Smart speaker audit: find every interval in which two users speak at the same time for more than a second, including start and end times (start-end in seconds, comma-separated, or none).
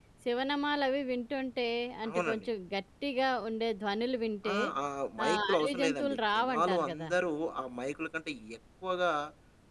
5.3-7.1